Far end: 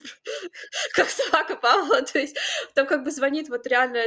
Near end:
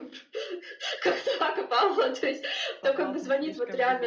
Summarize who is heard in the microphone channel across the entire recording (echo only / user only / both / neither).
both